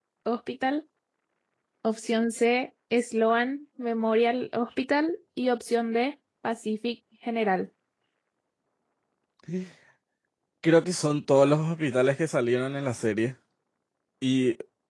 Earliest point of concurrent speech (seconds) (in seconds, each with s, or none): none